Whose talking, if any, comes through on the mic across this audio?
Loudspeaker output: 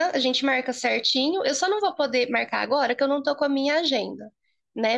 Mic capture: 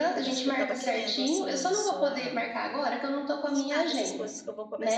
both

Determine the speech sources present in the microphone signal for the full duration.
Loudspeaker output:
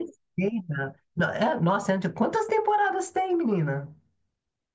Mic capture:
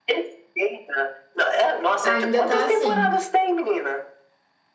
both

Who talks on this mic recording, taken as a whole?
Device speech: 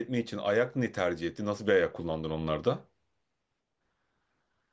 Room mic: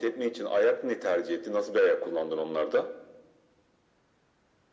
echo only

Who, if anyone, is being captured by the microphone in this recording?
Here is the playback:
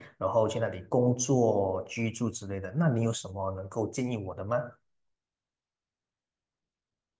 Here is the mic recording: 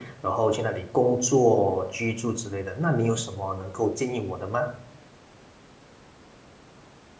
echo only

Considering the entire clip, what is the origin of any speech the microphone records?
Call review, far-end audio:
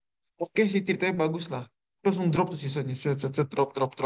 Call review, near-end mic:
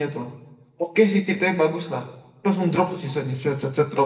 echo only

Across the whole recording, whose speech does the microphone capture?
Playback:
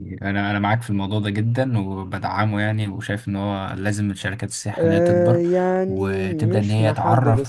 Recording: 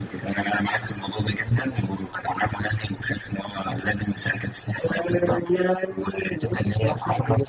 echo only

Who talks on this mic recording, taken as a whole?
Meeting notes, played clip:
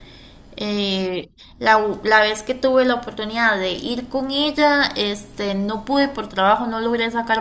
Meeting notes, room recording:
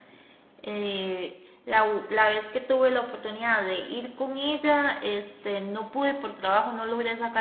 echo only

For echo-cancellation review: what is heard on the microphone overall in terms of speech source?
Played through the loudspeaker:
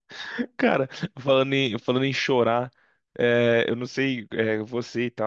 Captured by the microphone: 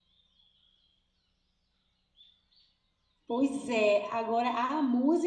user only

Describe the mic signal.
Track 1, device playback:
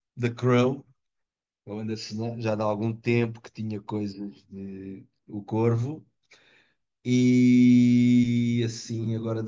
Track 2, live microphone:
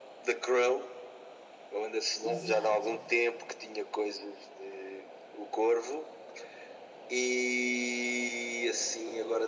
both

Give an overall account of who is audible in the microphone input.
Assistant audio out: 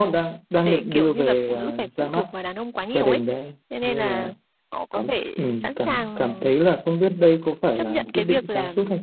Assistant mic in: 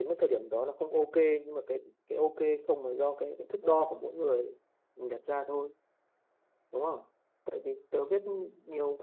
user only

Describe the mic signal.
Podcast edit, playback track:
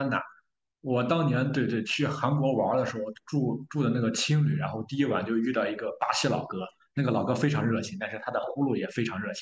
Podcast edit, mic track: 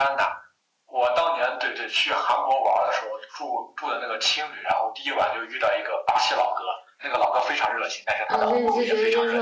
both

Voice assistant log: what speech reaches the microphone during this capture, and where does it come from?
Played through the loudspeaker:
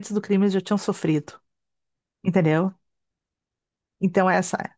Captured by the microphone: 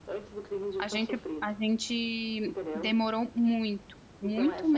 both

